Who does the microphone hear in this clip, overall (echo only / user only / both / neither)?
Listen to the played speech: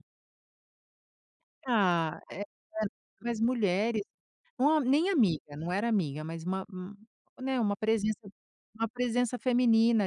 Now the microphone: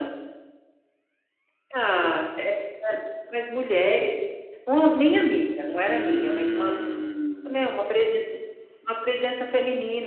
both